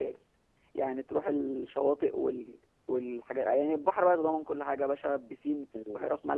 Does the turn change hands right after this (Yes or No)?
No